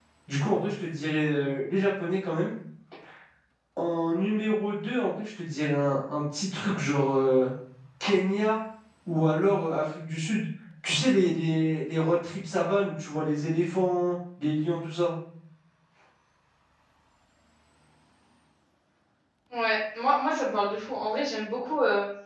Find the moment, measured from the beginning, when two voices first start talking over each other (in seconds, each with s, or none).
none